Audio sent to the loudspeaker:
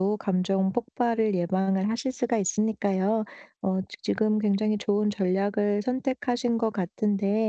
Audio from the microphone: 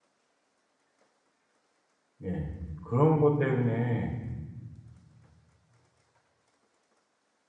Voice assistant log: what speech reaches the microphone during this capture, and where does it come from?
user only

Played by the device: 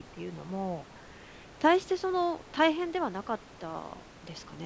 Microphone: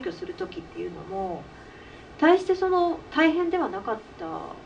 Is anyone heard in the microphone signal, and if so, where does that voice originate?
echo only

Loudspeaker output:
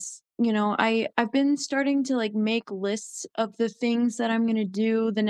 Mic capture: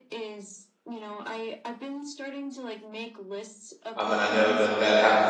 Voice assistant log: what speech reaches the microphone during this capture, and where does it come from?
both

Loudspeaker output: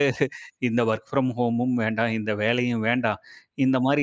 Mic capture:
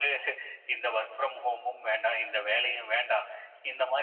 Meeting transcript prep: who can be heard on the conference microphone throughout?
echo only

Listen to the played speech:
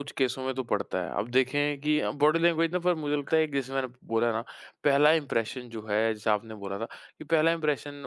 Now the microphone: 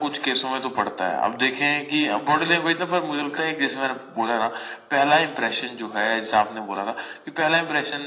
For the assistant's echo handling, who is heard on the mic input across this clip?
echo only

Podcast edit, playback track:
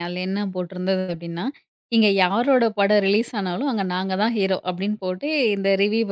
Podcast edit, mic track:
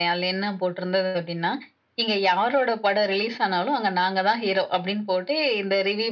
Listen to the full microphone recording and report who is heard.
echo only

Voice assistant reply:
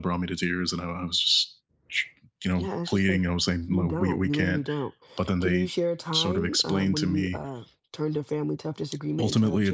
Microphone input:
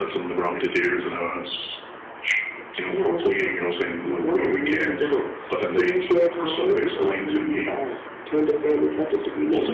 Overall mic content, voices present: echo only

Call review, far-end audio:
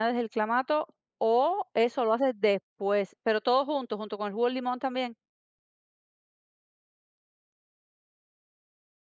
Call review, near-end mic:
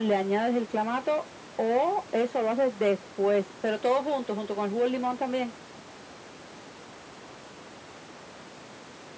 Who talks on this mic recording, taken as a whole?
echo only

